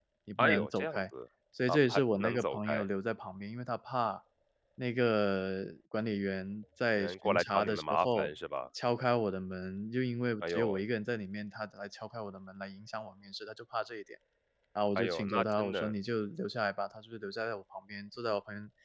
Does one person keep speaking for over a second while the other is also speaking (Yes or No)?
Yes